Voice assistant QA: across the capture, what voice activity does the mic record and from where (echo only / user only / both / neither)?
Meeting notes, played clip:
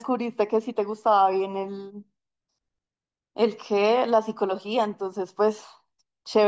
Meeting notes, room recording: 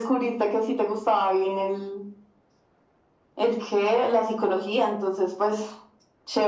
echo only